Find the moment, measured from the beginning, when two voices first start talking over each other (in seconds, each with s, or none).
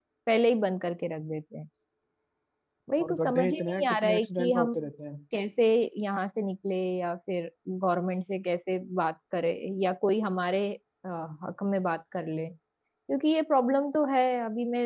3.0 s